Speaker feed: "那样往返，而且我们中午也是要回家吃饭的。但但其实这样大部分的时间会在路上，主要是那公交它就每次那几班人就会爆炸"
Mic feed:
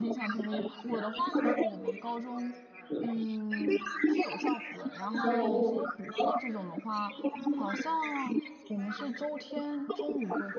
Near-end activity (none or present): present